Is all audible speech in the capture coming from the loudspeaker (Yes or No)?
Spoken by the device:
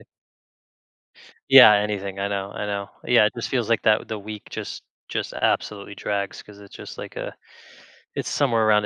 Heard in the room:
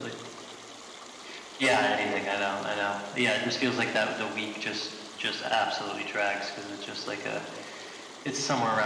Yes